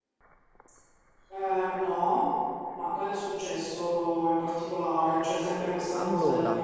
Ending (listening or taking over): listening